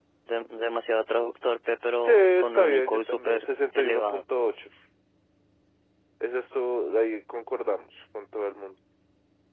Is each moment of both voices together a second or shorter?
No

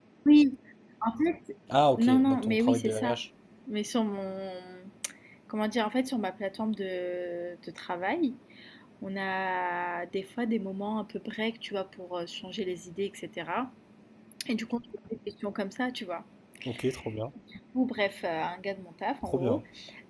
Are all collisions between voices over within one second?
No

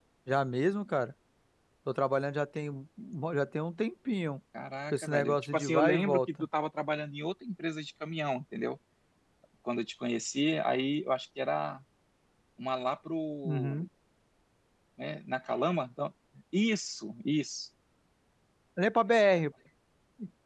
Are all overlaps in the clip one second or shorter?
No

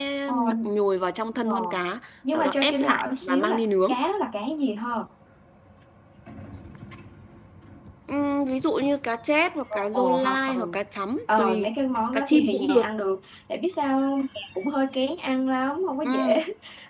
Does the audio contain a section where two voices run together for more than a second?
Yes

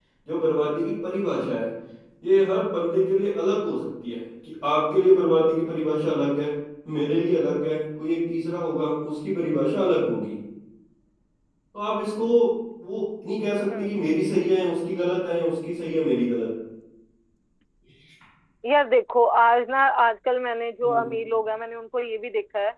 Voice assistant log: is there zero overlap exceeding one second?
Yes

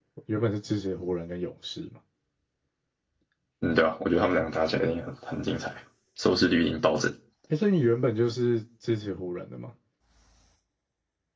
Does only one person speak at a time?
Yes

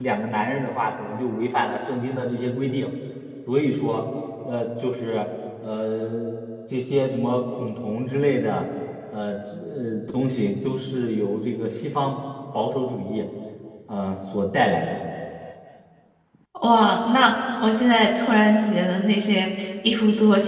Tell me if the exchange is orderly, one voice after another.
Yes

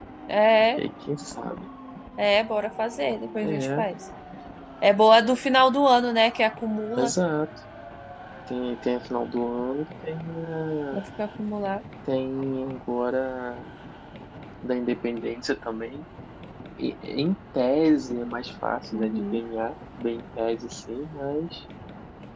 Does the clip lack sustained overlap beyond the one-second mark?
Yes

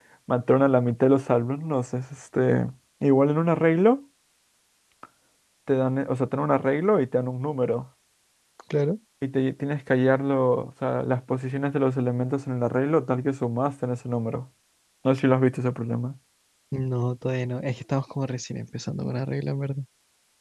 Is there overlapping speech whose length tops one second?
No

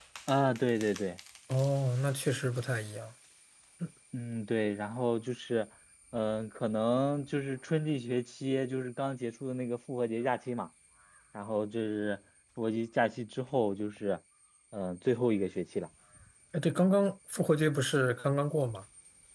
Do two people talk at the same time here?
No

